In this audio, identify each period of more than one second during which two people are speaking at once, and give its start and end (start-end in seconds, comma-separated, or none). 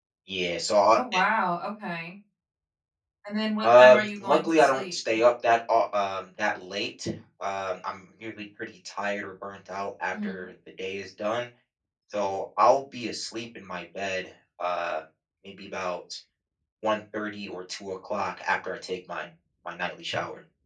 3.6-4.9